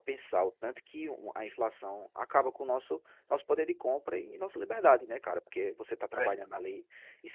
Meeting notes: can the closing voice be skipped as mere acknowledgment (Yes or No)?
Yes